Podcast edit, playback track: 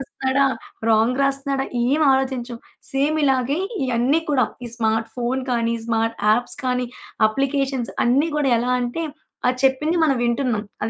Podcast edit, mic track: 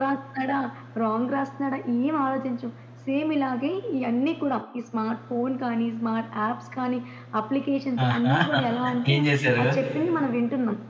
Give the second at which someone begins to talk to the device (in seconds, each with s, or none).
8.1 s